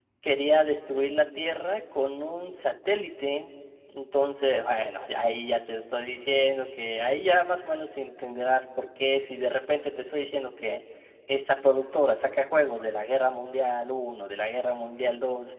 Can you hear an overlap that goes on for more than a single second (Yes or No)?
No